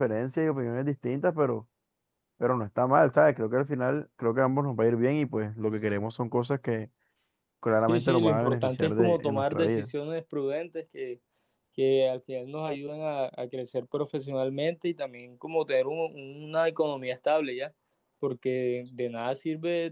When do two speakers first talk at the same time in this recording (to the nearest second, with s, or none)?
8 s